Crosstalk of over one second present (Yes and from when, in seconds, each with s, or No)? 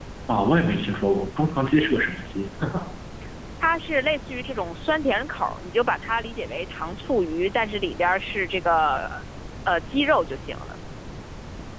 No